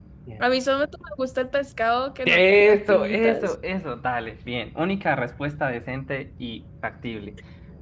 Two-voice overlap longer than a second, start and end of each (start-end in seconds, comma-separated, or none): 2.3-3.5